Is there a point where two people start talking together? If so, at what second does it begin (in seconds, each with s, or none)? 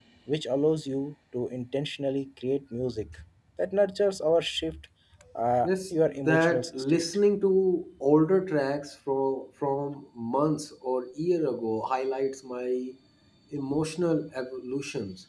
5.6 s